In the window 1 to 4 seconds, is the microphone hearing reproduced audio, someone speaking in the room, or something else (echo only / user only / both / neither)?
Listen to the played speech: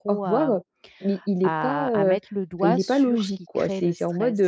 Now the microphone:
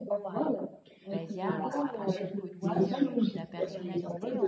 both